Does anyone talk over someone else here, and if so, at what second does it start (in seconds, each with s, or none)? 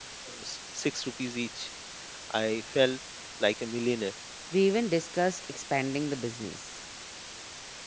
none